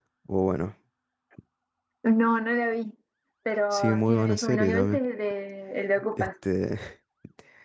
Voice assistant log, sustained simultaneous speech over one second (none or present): present